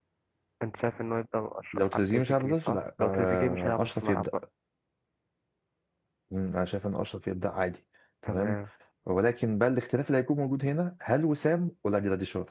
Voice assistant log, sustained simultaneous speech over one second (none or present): present